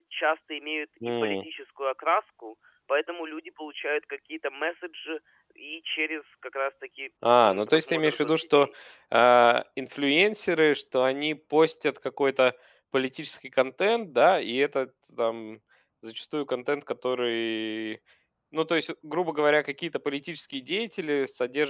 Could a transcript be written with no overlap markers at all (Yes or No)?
No